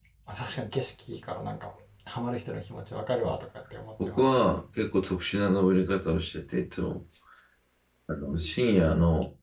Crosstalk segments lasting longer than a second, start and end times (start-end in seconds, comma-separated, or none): none